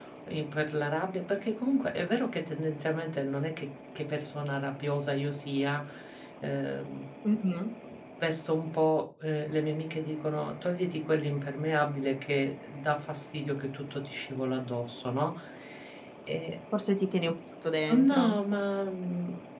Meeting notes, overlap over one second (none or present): none